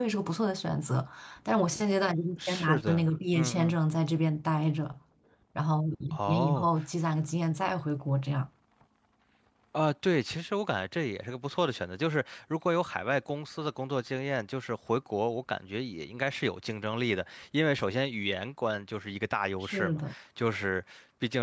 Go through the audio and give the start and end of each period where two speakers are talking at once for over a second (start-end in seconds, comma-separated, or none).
2.5-3.8